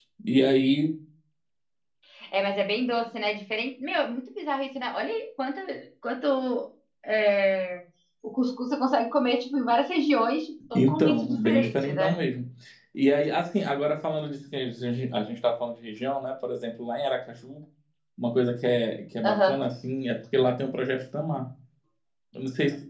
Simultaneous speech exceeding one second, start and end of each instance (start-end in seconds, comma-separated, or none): 10.8-12.2